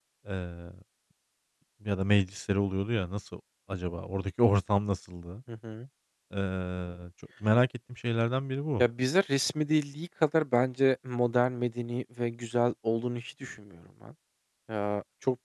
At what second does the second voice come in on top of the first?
none

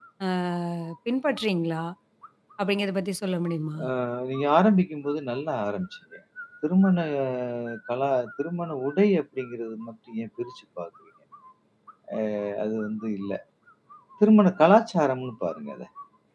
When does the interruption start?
none

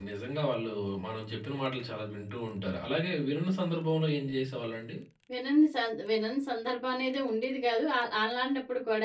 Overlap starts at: none

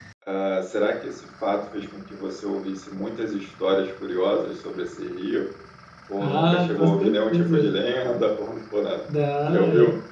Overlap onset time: 6.2 s

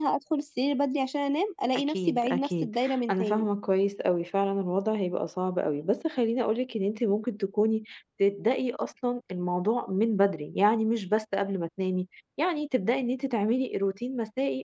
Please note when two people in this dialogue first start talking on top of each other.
1.7 s

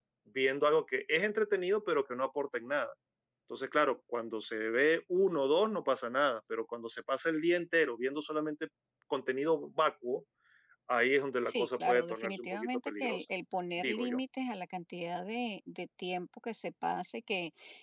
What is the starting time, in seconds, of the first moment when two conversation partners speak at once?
11.4 s

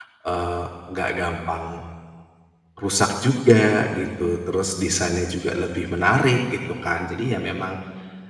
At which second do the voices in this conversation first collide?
none

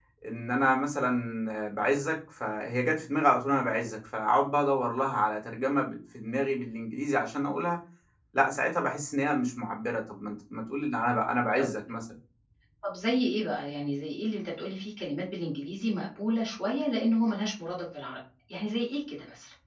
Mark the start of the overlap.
none

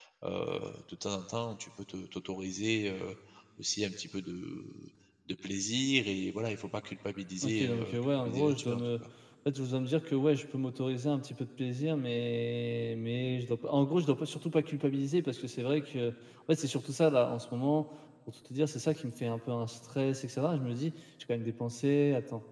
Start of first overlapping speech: 7.4 s

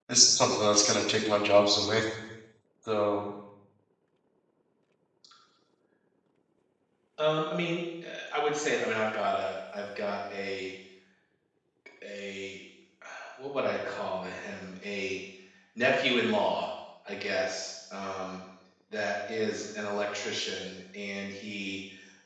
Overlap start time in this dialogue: none

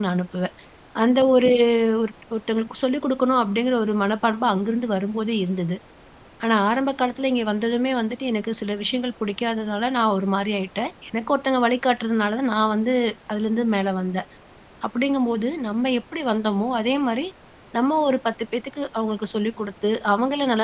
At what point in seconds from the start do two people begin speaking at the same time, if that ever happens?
none

